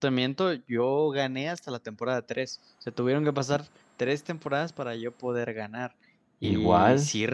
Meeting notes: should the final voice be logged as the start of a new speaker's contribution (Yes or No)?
No